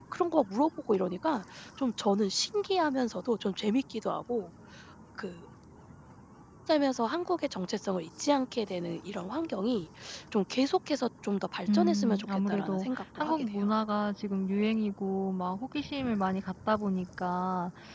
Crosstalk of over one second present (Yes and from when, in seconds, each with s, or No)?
Yes, from 11.7 s